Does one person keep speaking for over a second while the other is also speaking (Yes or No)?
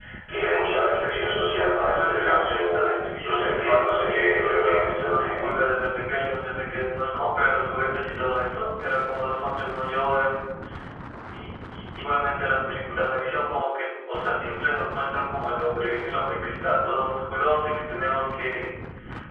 Yes